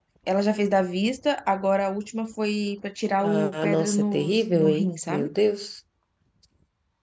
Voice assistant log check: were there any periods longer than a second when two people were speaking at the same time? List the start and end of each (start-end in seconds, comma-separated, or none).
3.2-5.3